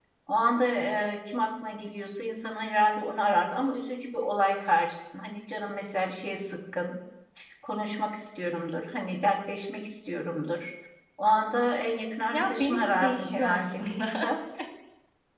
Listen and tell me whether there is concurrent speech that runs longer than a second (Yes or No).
Yes